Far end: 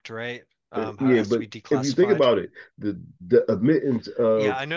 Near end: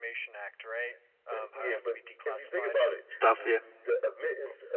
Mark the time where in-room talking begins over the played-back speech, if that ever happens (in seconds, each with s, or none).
3.0 s